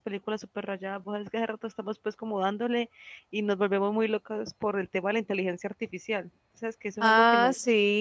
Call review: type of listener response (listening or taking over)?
taking over